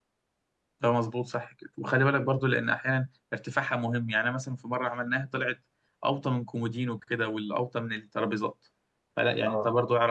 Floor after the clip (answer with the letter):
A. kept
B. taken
A